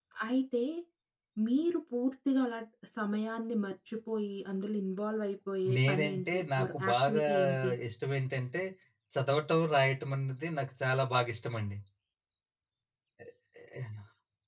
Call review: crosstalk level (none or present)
present